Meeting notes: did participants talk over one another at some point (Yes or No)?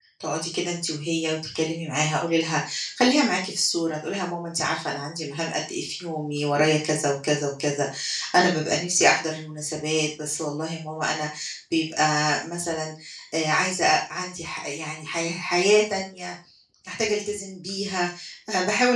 No